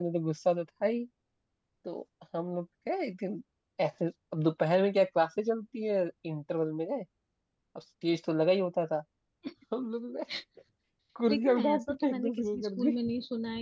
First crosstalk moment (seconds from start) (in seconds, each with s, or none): 11.3 s